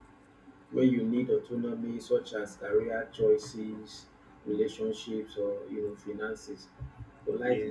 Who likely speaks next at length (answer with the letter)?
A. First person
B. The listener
A